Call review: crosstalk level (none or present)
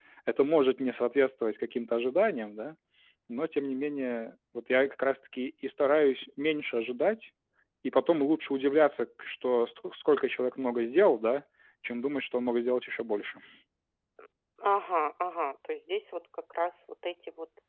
none